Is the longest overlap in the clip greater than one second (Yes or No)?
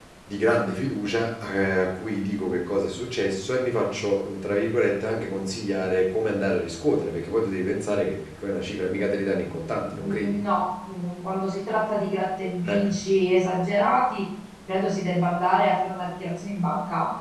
No